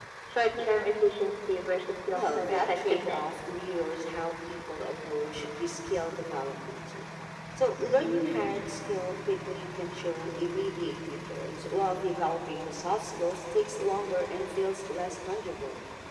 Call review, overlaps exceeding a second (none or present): present